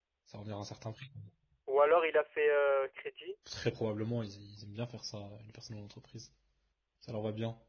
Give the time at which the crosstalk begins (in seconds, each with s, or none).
none